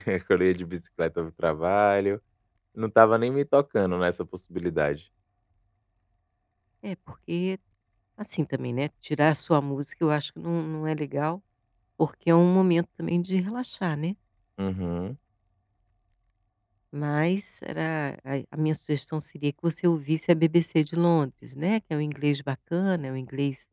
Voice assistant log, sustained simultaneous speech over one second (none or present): none